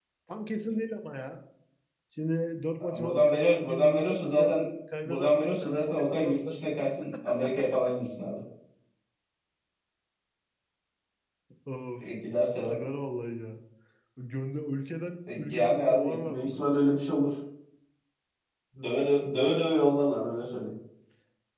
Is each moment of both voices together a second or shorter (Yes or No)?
No